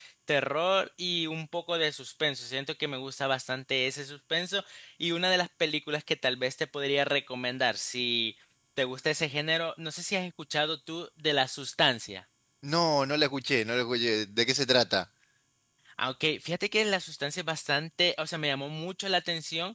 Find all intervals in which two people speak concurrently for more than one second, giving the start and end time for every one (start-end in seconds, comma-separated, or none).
none